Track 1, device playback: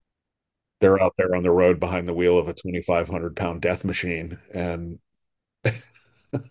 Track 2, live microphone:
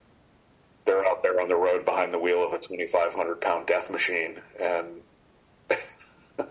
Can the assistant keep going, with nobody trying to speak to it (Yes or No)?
Yes